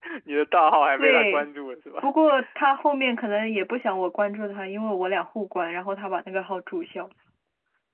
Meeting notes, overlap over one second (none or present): none